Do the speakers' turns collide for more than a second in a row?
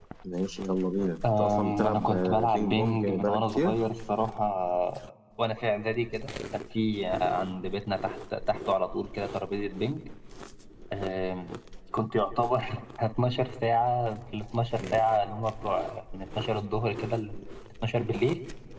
Yes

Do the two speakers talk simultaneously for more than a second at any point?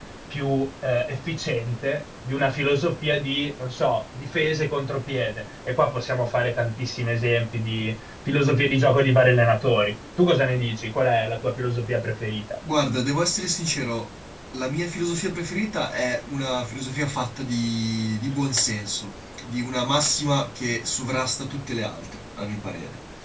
No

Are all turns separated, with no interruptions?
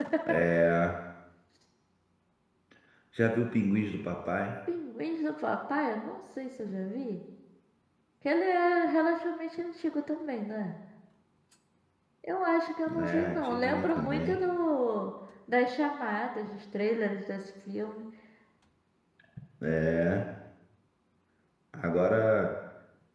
No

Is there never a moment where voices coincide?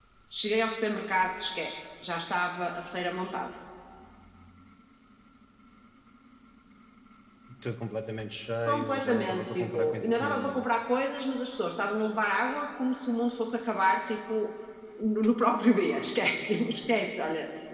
No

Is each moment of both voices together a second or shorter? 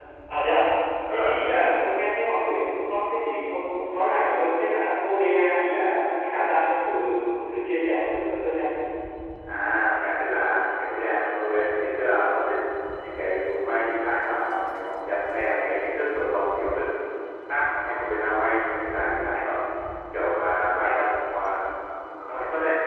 Yes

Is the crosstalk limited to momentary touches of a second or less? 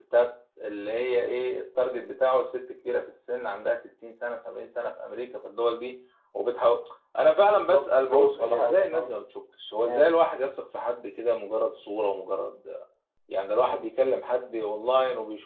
No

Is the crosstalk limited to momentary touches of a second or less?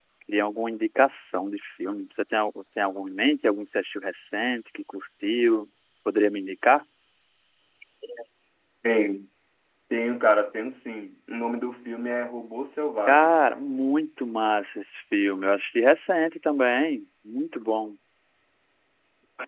Yes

